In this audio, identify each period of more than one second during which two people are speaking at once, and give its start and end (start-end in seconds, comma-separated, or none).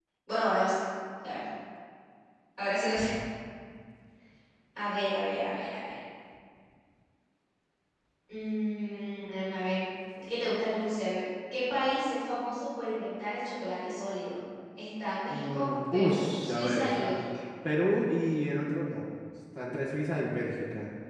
15.3-17.2